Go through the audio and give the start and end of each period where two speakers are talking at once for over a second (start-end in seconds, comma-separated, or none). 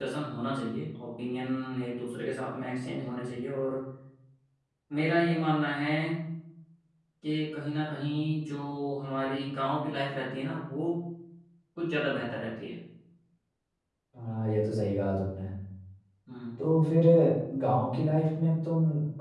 none